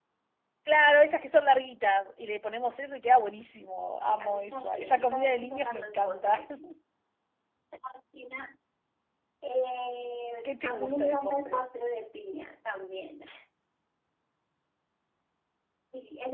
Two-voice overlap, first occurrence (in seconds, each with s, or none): 4.1 s